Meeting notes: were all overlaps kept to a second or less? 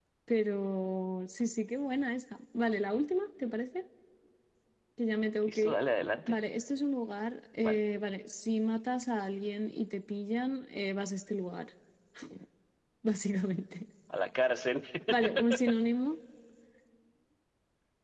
Yes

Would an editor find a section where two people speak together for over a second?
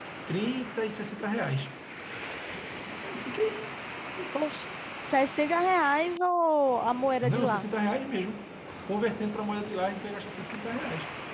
No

